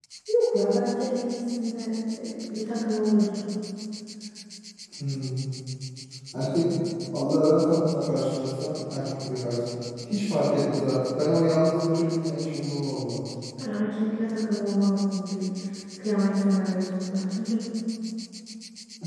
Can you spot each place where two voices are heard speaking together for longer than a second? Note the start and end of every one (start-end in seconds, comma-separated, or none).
none